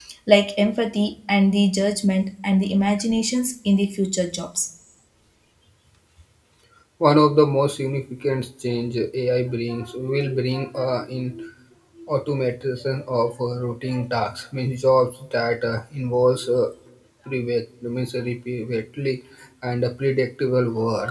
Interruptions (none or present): none